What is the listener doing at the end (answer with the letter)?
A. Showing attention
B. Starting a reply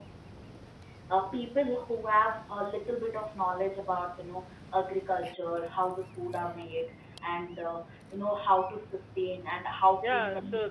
B